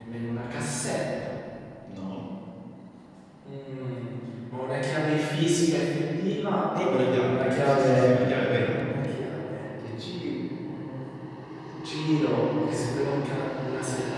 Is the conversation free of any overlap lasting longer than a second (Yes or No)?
No